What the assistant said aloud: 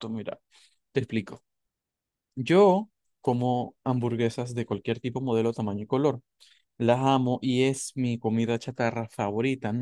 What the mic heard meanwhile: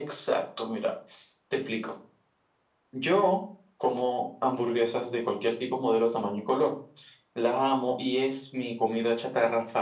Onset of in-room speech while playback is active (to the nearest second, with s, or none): none